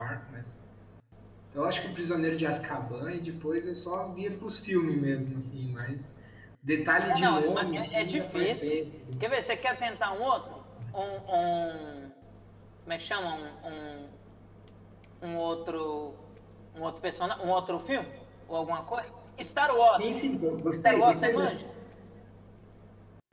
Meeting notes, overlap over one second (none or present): present